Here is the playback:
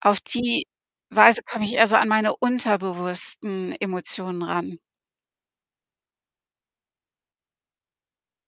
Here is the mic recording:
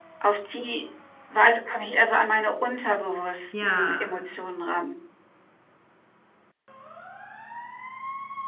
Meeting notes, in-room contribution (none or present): present